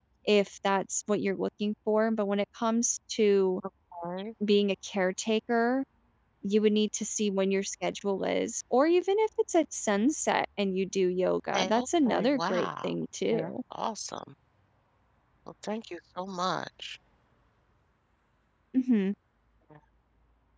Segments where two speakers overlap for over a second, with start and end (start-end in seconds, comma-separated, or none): 11.5-12.9